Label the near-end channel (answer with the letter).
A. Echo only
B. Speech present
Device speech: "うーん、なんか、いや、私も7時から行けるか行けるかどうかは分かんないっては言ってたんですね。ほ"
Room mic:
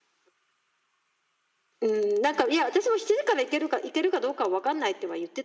A